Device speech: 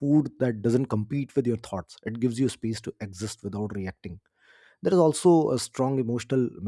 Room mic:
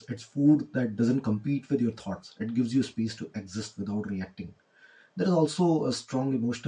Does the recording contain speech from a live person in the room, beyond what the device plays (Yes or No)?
No